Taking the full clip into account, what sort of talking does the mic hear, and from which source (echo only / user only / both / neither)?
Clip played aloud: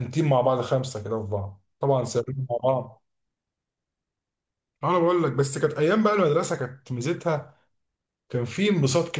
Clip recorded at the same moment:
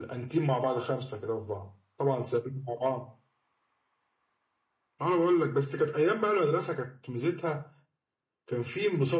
echo only